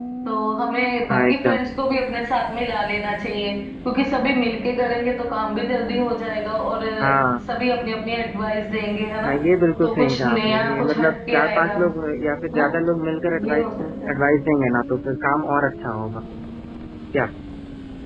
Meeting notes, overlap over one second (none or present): present